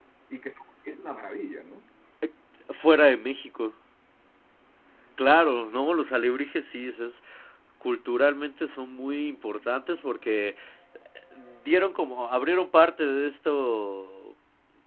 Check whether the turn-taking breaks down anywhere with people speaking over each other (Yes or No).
No